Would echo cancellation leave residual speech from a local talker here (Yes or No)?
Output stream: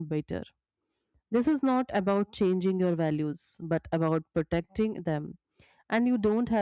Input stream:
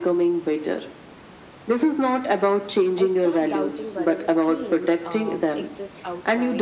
Yes